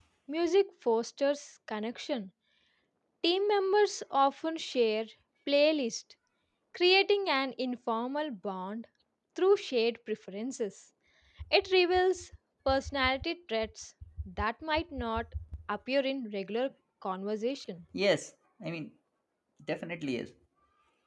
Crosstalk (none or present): none